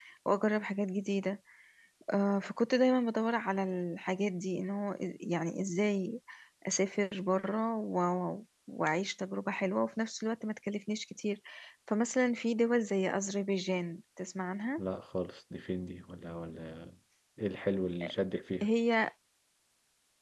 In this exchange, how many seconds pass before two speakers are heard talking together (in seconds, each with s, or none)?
none